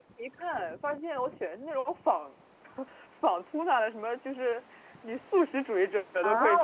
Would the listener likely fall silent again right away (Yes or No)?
No